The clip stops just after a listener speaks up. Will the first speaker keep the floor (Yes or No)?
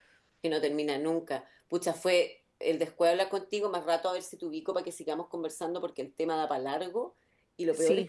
Yes